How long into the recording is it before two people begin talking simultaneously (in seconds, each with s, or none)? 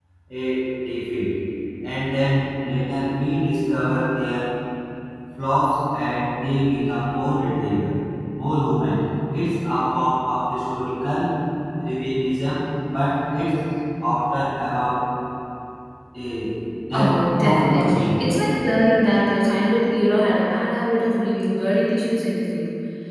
16.9 s